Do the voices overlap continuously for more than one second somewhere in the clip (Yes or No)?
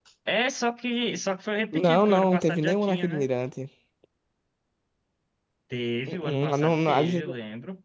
Yes